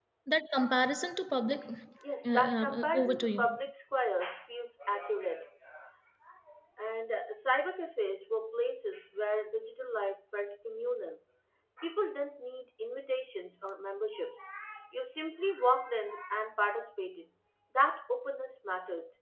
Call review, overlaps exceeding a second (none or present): present